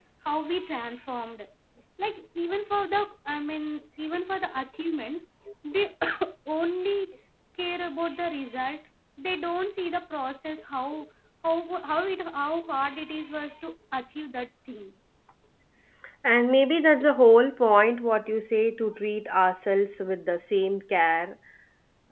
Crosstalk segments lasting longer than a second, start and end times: none

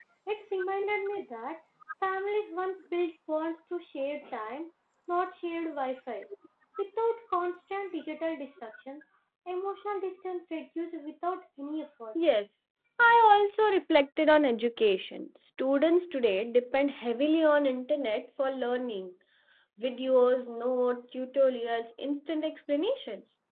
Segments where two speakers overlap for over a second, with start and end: none

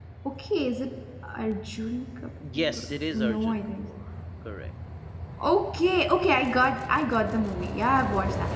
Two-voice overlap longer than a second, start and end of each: 2.6-3.9

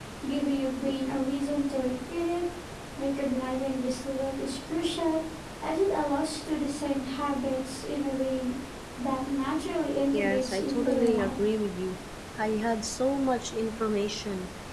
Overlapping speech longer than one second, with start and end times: 10.1-11.4

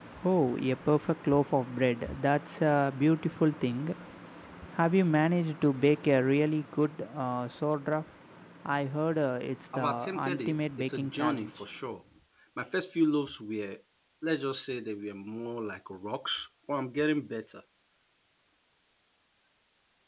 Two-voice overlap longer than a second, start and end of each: 9.7-11.6

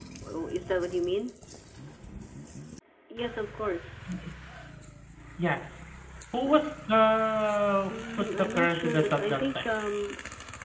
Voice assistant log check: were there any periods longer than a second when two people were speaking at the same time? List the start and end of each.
8.2-9.7

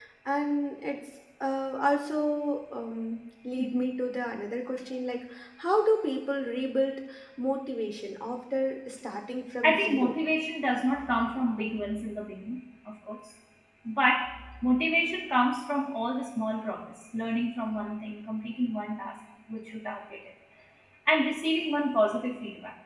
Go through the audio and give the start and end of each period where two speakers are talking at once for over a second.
none

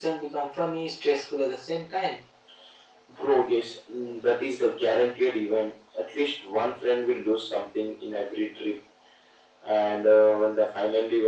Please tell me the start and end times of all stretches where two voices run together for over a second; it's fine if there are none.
none

